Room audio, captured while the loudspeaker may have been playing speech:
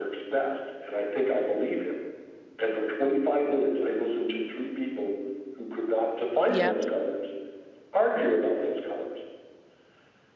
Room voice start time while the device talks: 6.5 s

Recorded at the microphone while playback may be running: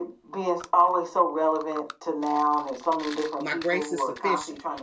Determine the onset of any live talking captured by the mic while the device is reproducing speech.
3.4 s

